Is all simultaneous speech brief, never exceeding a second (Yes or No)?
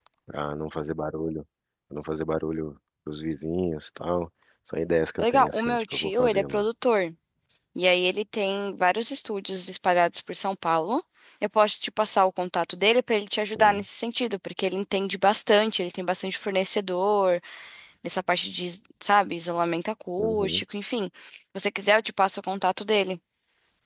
No